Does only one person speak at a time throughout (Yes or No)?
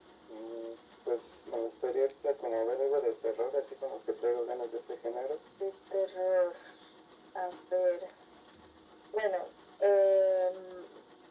Yes